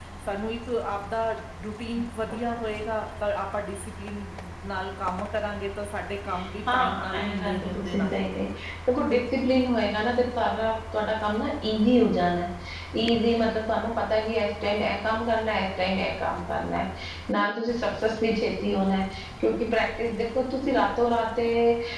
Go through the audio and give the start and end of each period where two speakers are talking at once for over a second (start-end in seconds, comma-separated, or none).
6.7-8.1